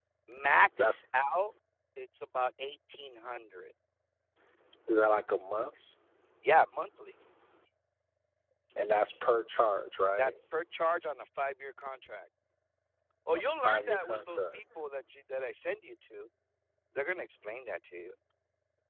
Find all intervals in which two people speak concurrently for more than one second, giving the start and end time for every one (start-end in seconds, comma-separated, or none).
13.3-14.6